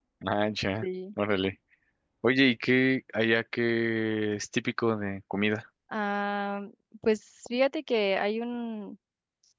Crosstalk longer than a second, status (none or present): none